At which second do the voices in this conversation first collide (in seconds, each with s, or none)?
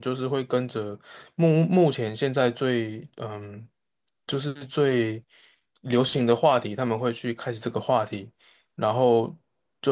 none